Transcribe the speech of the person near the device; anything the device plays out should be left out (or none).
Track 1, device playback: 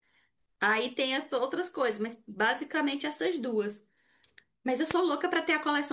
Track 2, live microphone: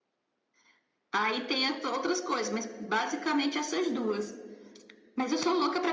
none